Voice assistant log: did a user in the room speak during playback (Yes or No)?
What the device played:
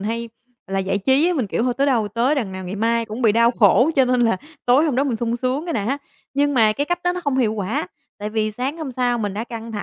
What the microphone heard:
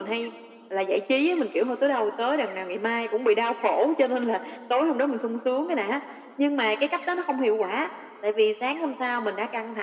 No